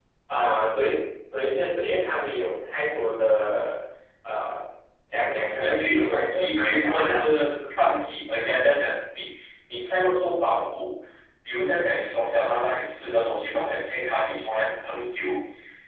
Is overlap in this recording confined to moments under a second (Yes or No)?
No